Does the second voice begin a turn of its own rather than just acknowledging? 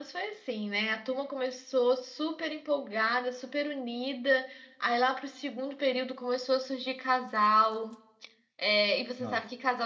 No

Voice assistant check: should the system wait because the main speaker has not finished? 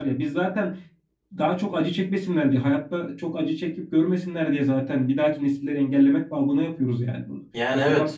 Yes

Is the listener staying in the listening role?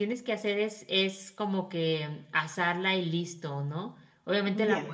Yes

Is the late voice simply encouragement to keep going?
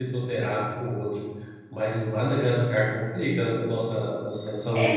No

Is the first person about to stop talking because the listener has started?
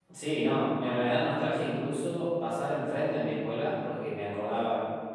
No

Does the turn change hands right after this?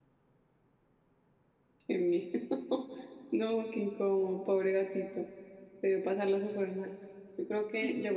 No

